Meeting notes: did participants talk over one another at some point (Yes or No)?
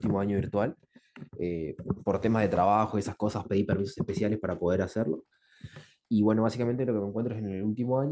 No